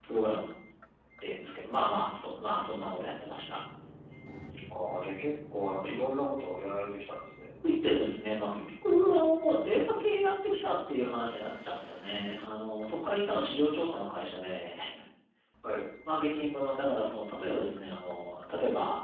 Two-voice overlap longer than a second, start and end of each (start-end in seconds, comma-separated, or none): none